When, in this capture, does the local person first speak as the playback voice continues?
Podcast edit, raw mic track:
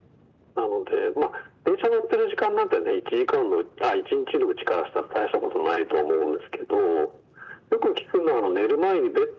none

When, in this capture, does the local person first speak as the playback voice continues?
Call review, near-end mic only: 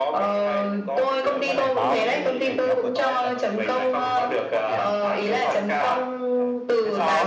1.3 s

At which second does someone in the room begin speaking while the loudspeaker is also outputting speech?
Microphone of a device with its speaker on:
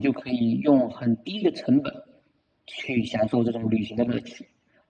none

